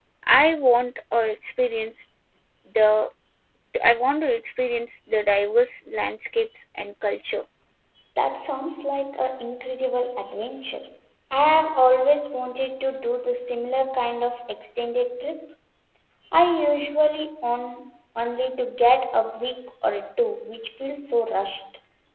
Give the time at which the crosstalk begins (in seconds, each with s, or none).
none